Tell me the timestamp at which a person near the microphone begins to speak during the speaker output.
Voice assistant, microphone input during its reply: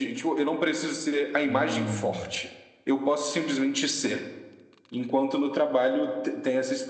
1 s

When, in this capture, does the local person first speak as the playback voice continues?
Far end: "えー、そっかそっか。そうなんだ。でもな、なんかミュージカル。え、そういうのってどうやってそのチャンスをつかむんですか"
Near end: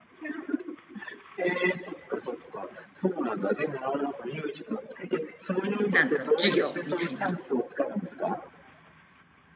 6 s

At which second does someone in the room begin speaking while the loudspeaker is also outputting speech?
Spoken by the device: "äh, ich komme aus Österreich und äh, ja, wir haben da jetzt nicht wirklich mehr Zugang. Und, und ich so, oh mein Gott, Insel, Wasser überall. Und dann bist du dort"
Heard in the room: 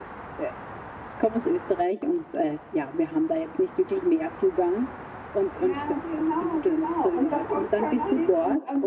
6 s

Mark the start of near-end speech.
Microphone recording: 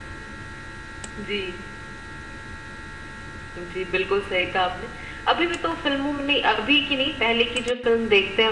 none

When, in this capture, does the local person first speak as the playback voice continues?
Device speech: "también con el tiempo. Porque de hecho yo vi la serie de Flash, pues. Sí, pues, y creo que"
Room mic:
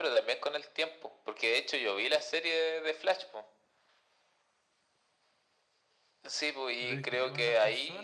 7 s

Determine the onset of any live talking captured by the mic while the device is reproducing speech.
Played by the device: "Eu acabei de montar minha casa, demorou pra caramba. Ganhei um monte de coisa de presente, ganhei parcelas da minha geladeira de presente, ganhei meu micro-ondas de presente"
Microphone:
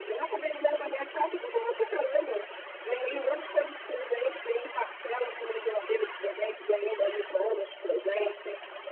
none

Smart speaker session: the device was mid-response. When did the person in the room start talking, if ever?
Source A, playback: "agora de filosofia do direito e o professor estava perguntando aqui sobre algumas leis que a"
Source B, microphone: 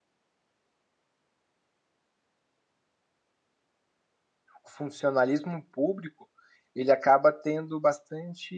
5 s

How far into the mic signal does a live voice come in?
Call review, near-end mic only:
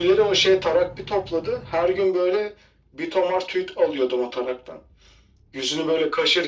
none

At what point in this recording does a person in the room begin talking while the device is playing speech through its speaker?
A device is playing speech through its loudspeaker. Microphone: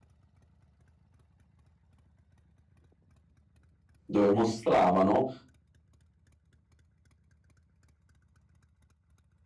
4 s

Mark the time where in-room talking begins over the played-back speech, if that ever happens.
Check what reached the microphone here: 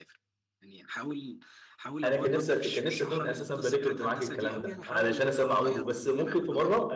2 s

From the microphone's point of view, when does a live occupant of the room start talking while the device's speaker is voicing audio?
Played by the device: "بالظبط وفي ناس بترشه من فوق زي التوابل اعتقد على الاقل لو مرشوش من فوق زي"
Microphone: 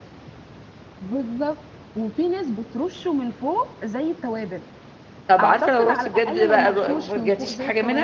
5 s

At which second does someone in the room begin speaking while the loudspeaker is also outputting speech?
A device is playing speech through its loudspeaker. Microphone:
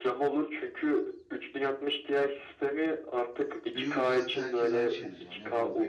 4 s

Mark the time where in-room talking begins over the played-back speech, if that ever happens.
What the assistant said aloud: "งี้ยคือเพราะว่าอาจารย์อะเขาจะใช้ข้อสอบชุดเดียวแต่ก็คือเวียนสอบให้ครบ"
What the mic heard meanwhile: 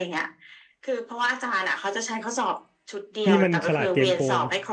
3 s

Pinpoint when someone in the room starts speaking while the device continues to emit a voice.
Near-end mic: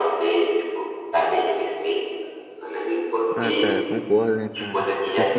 3 s

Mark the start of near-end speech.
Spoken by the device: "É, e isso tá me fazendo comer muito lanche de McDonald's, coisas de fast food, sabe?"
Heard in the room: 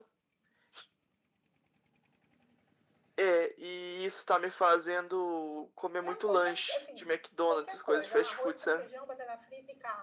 6 s

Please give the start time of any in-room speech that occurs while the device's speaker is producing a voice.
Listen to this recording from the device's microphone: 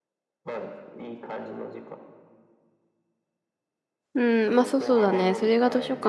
4 s

